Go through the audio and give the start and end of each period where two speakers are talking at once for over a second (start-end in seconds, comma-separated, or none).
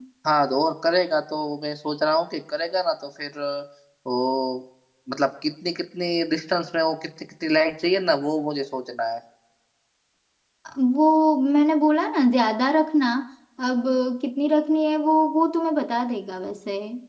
none